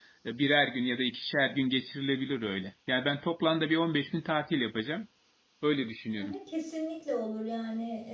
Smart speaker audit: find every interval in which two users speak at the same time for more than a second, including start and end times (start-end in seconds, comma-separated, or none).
none